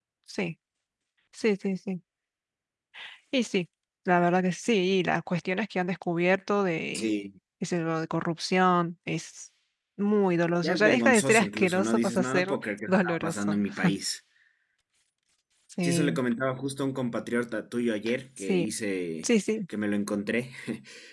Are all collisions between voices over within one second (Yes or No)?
No